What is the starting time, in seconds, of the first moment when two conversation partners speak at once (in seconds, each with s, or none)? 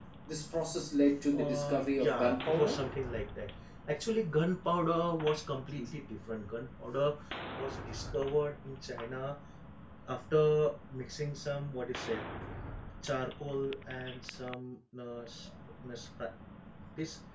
1.3 s